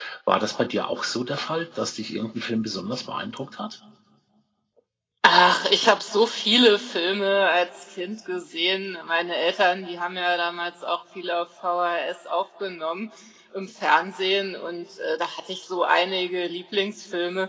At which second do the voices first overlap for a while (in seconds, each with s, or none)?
none